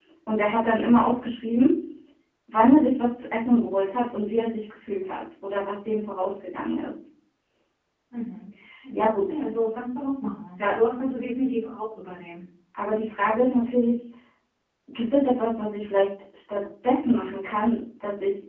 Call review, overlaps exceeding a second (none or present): none